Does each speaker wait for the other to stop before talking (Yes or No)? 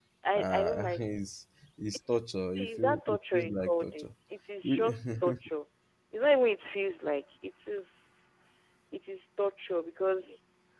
No